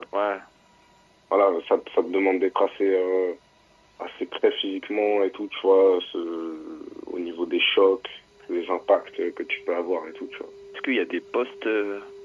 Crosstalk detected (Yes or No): No